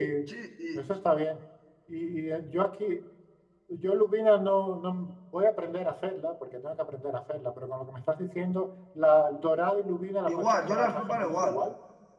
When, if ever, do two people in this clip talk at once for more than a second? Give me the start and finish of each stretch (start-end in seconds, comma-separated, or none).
10.3-11.6